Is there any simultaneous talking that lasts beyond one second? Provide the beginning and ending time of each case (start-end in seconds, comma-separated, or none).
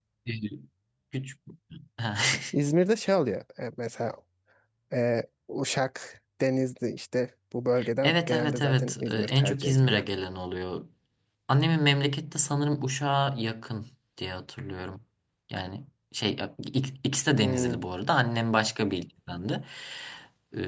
8.0-10.0